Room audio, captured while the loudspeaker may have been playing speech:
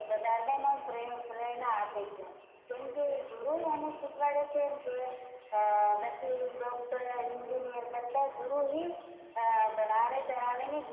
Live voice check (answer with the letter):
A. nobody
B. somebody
A